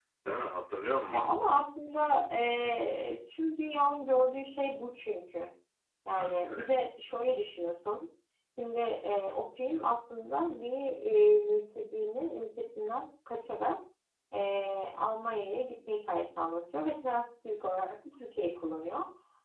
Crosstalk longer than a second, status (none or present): none